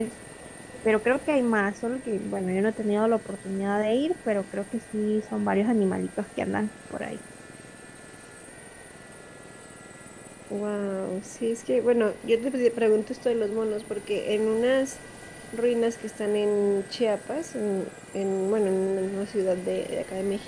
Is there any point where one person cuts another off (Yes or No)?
No